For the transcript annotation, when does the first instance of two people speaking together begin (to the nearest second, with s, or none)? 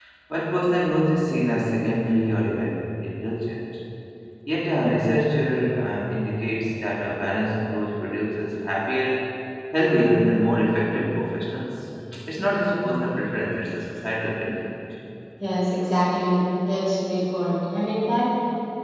none